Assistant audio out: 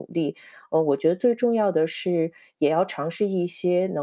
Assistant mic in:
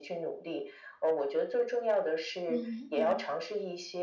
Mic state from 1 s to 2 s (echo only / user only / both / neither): echo only